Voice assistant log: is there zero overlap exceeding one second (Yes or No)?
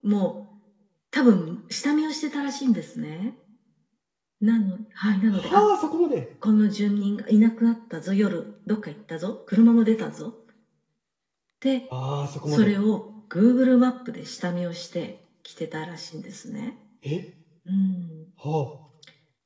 Yes